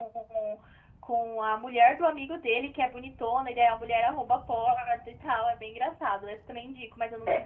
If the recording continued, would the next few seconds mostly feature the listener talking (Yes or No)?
Yes